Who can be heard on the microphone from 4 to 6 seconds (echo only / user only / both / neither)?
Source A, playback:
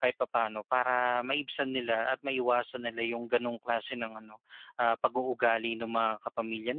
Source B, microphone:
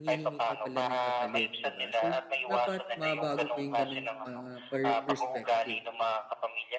both